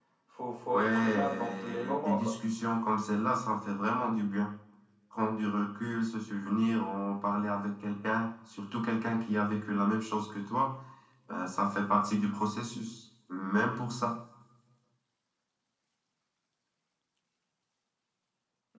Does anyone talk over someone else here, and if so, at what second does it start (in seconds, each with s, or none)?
0.7 s